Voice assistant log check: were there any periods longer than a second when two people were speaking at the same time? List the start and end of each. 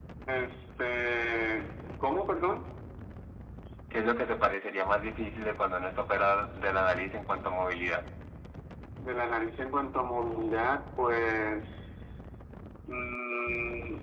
none

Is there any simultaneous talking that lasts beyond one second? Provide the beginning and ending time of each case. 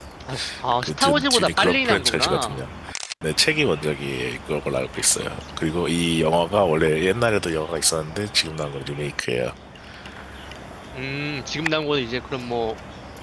0.8-2.6

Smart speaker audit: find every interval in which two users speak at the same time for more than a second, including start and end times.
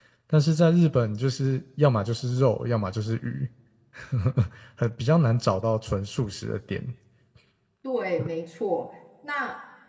none

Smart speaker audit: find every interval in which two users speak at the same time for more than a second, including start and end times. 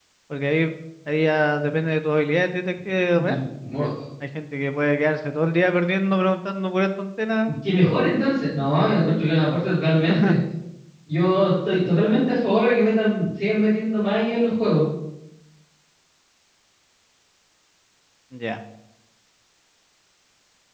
none

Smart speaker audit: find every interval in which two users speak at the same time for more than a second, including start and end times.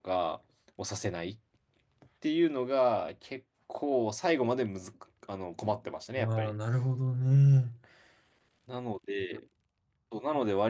none

